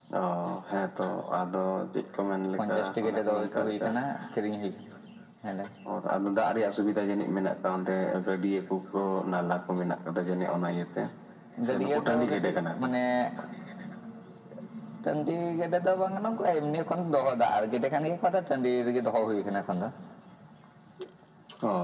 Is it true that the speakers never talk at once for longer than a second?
No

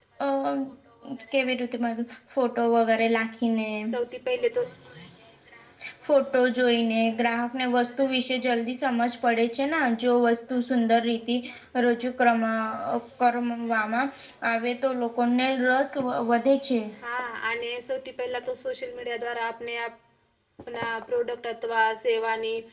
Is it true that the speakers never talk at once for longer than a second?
Yes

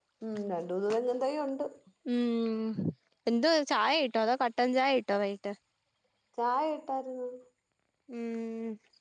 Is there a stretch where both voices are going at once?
No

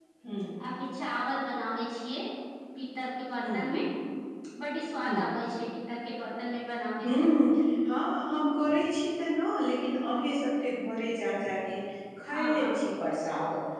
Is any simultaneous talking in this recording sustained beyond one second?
No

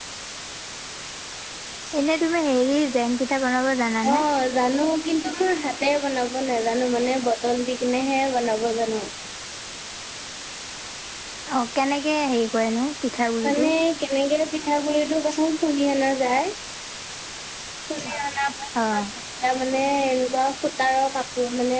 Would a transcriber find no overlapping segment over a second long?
Yes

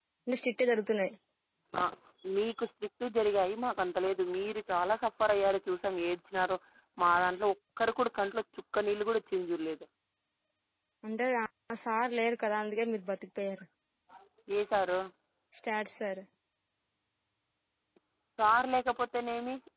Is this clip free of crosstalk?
Yes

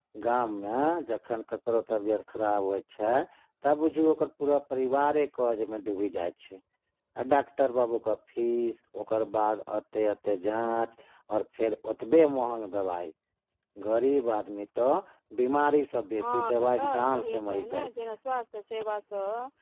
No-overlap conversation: No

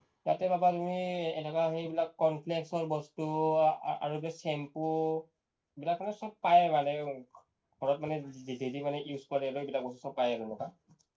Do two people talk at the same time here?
No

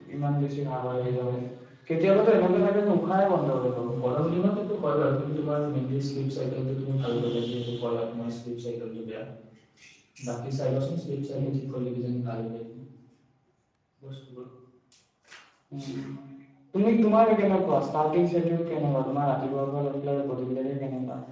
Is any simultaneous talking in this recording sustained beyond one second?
No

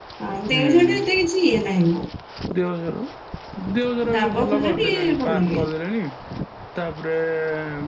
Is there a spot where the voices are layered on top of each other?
Yes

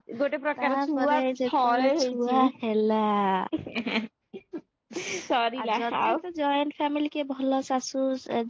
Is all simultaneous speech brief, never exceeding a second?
No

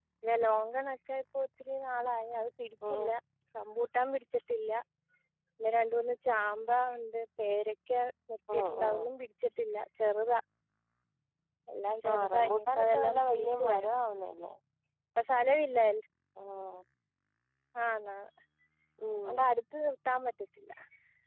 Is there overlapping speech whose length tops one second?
Yes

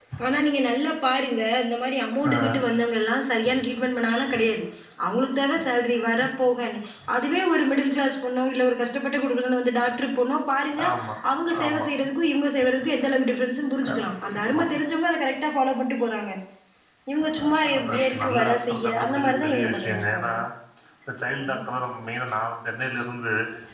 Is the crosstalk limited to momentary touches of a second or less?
No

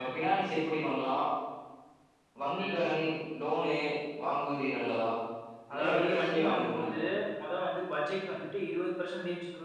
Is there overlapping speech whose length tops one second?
Yes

